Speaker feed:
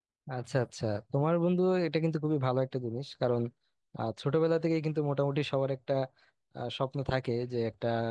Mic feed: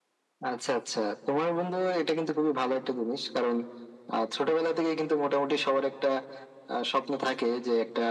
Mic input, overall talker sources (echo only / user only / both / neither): echo only